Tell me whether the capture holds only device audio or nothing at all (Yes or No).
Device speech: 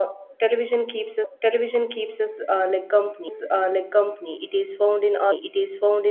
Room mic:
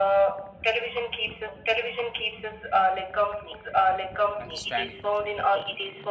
No